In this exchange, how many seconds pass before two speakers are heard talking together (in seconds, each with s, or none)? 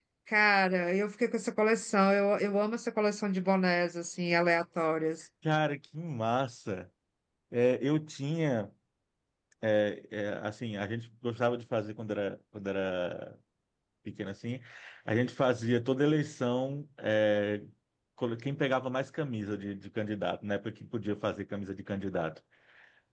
none